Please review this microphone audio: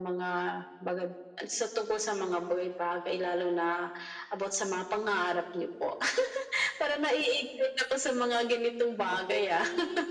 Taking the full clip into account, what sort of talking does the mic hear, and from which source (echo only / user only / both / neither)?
both